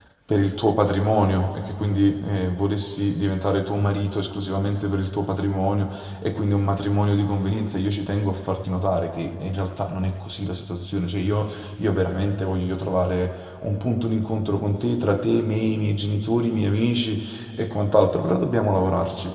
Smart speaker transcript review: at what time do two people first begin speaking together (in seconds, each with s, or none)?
none